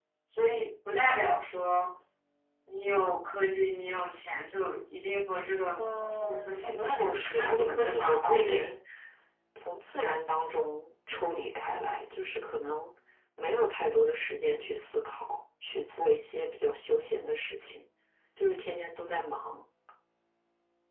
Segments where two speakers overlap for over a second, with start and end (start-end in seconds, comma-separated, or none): 5.8-8.7